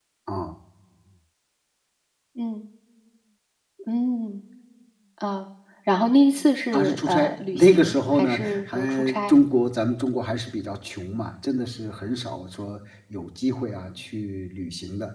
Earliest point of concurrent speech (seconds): 6.7 s

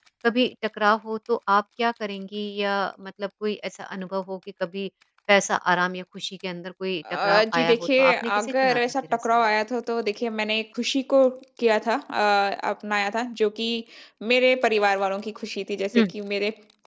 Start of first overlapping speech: 7.0 s

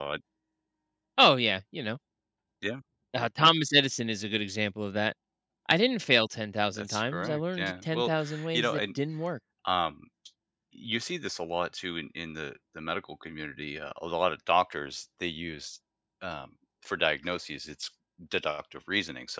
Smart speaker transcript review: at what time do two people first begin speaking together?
6.8 s

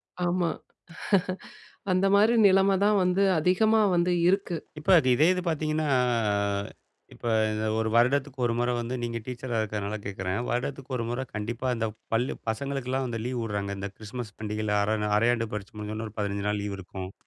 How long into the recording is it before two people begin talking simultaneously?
none

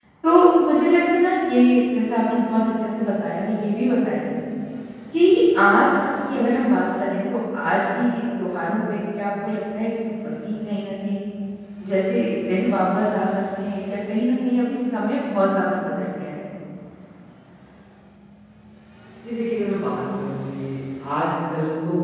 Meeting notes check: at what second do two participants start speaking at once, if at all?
none

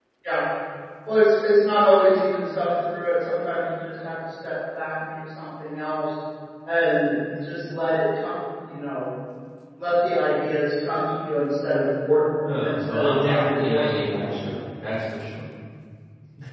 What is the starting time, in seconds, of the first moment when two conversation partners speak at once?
12.4 s

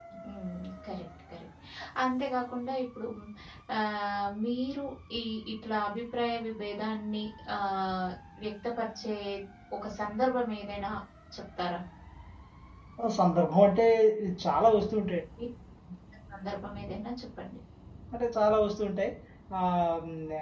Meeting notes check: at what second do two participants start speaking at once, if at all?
none

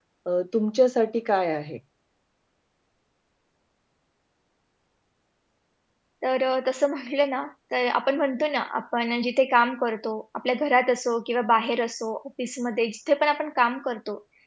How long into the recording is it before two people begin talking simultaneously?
none

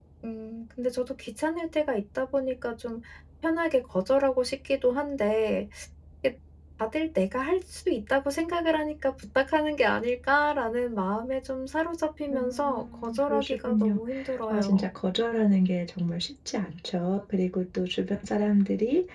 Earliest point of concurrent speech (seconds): 12.3 s

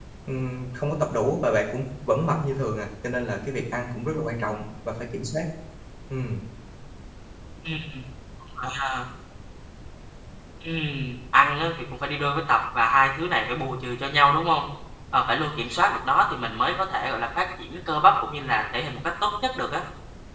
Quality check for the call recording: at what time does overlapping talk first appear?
none

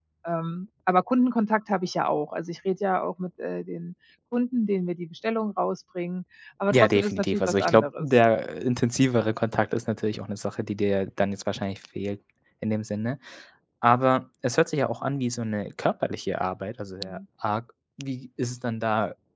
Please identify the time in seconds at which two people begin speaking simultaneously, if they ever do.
6.7 s

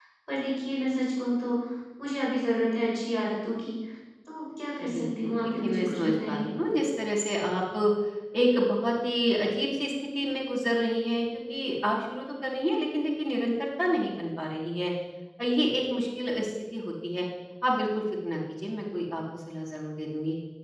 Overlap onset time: 4.8 s

